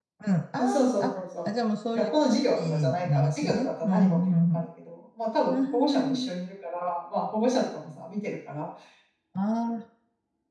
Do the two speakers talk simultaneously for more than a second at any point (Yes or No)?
Yes